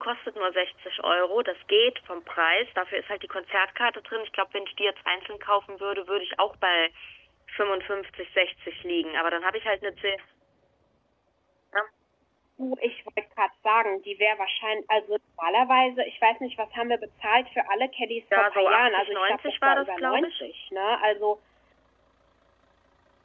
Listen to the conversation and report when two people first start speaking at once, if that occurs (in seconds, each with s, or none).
18.3 s